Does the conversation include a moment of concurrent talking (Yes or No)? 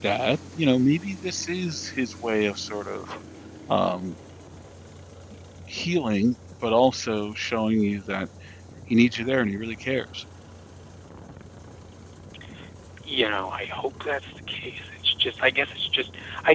No